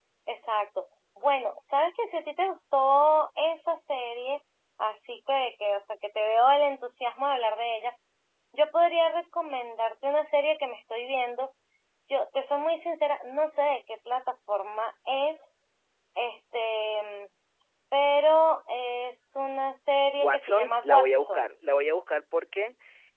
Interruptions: present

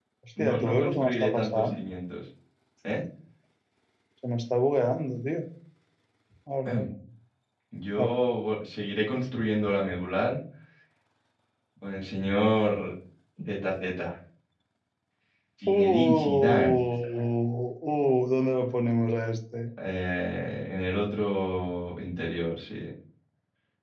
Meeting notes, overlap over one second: present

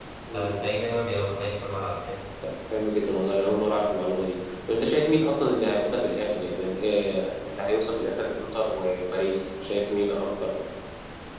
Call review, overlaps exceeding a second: none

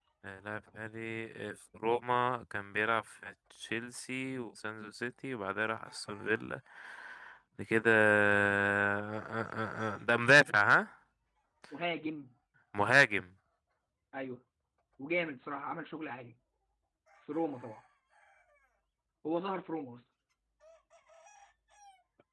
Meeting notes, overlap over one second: none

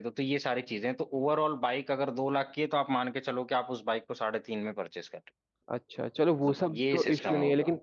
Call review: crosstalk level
present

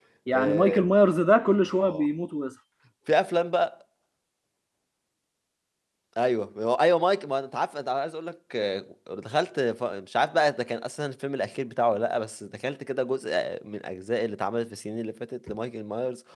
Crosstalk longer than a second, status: none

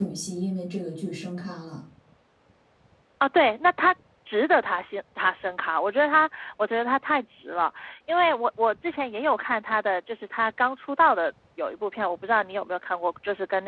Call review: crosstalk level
none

